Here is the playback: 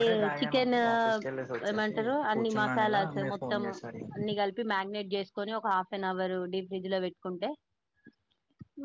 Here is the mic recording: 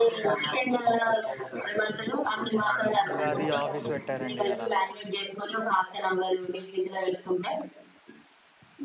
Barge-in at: 3.1 s

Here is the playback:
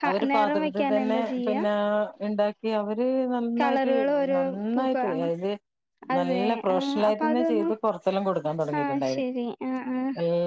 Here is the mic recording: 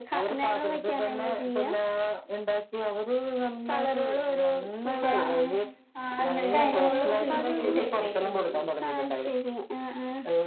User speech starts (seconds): 5.1 s

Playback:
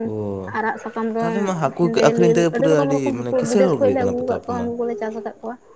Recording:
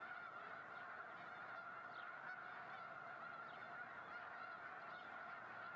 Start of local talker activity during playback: none

